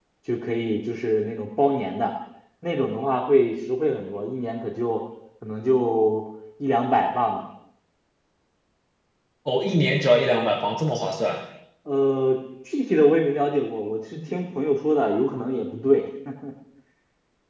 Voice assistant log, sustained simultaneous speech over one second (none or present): none